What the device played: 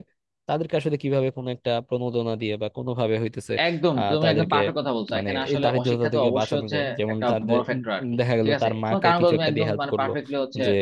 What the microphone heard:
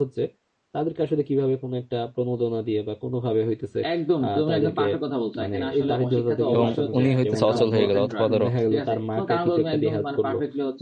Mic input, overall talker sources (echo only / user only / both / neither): both